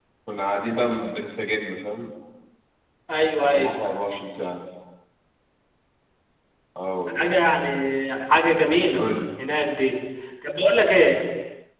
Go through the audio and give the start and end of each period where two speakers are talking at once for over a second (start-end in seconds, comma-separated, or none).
none